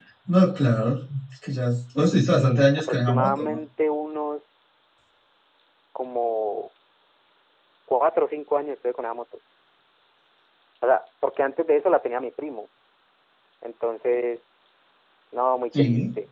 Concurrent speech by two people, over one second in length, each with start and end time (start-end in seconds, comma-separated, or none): 2.3-3.6